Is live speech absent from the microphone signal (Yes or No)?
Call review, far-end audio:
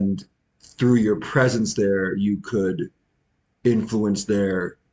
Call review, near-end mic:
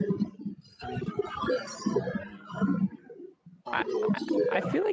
No